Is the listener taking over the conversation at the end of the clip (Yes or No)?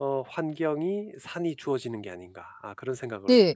Yes